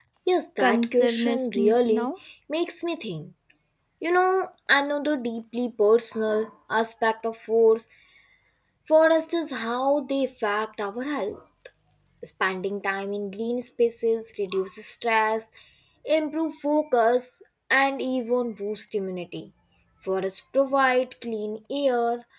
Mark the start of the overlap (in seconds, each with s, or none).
0.6 s